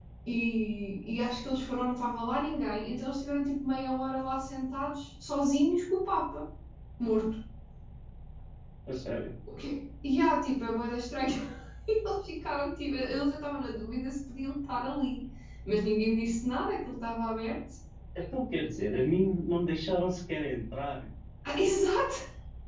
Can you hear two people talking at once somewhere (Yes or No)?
No